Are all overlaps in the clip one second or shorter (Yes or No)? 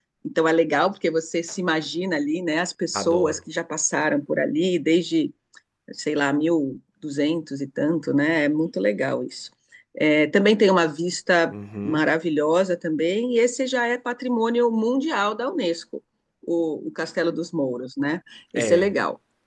Yes